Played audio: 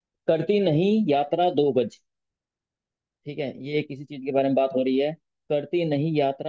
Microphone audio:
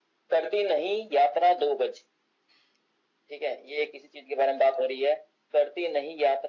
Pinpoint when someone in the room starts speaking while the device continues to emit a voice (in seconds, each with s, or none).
none